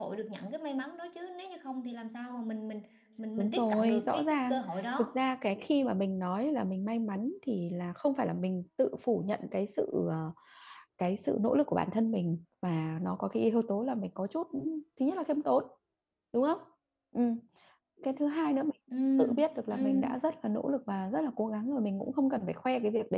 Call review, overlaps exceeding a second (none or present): present